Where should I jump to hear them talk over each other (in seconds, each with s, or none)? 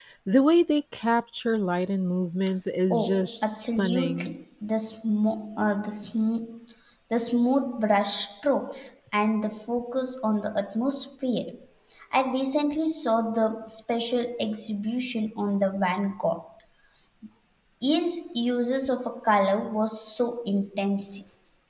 2.9 s